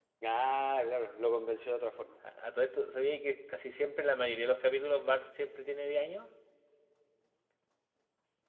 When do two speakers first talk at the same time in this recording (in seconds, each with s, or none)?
none